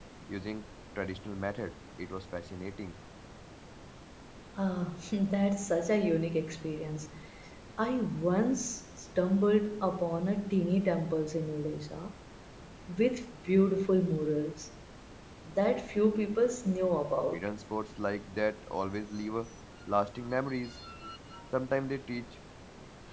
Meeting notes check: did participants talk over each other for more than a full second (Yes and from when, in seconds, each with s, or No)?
No